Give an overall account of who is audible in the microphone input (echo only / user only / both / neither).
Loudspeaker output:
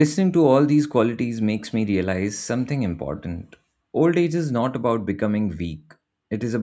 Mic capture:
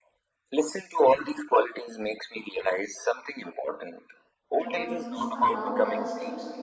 both